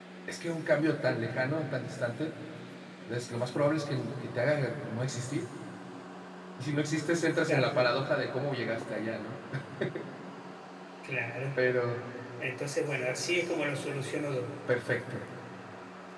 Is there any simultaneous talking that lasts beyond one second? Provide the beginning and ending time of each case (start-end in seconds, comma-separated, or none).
none